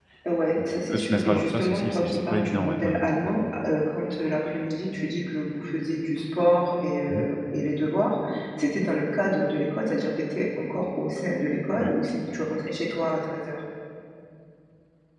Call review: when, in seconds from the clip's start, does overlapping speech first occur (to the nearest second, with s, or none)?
1 s